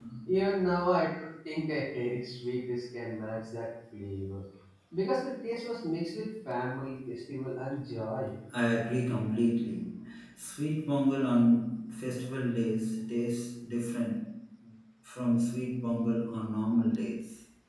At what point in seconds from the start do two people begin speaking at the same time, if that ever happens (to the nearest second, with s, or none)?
none